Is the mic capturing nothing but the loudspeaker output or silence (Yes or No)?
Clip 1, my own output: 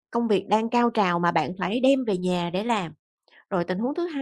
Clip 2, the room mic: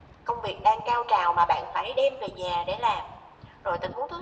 Yes